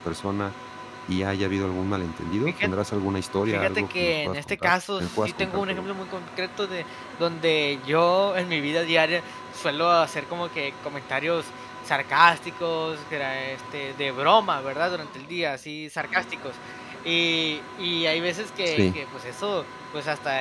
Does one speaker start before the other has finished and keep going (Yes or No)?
Yes